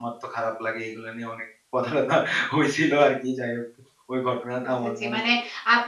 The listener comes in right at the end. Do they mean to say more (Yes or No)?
Yes